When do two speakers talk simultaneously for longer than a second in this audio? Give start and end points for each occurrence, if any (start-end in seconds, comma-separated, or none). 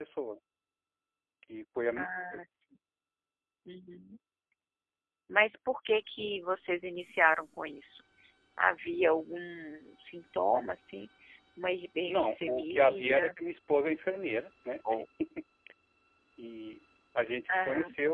12.1-13.3